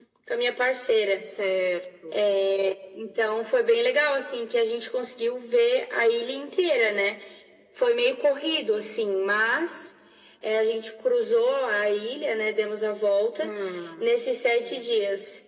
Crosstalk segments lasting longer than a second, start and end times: none

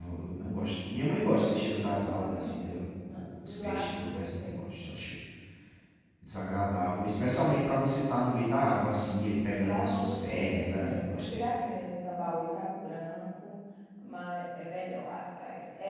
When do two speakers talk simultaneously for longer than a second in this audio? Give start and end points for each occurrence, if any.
3.1-4.5, 9.6-11.4

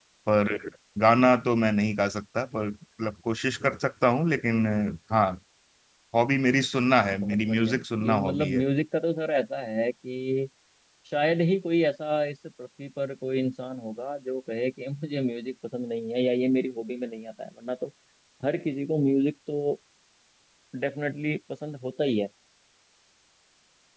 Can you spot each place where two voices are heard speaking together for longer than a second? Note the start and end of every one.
7.1-8.6

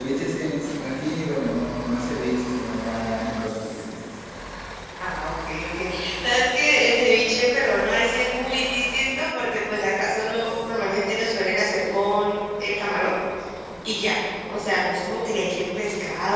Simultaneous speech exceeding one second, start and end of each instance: none

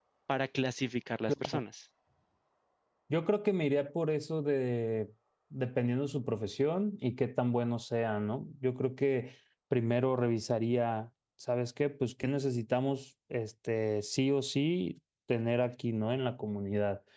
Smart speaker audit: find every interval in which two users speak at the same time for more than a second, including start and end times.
none

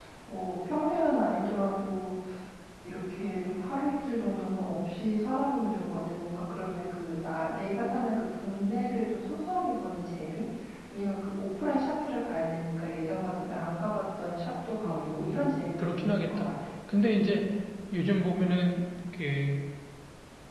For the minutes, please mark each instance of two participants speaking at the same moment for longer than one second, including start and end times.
14.8-16.5

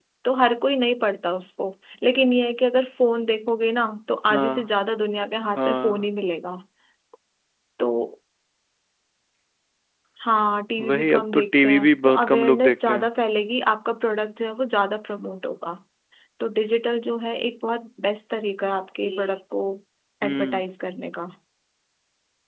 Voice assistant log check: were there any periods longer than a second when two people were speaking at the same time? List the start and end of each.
10.9-13.1

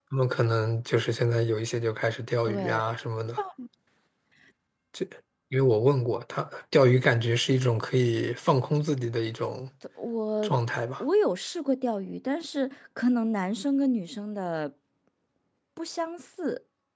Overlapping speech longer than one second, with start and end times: none

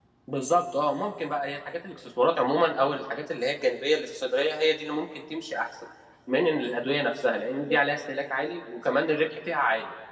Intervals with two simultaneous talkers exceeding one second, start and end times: none

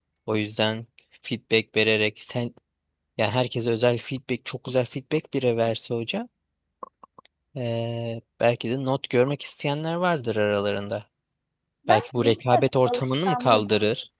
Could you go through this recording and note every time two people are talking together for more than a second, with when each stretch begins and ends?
11.9-13.7

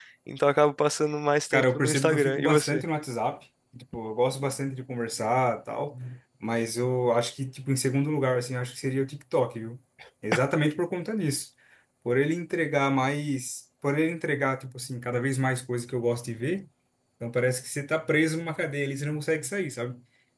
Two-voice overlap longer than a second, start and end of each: 1.5-2.8

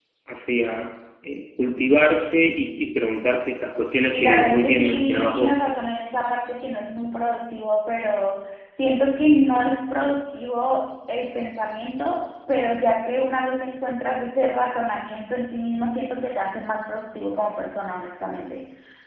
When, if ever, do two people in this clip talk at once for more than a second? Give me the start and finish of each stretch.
4.0-5.6

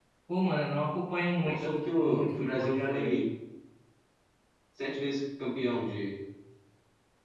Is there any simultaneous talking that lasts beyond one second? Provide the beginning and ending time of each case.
1.4-3.2

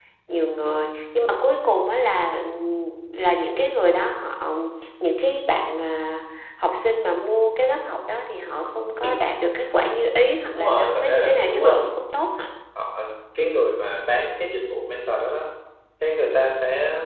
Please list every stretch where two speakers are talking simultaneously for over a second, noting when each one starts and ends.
10.5-12.0

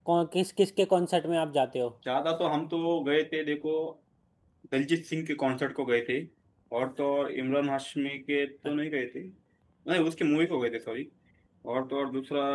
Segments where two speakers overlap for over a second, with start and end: none

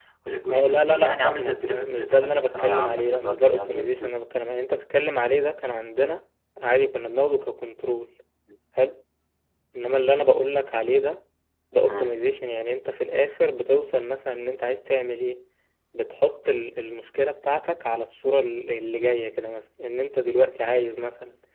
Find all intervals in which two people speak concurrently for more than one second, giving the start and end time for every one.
0.5-4.1

